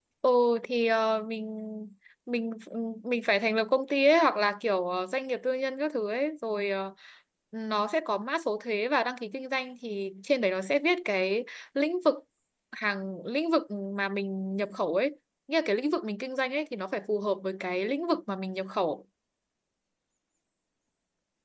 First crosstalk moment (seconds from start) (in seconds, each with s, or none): none